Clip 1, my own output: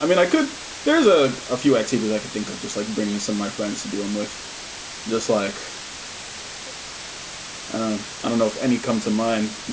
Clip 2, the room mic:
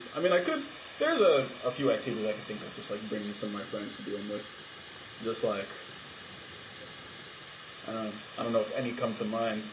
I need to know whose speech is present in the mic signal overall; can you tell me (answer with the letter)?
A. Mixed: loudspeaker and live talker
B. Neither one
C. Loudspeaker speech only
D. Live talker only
C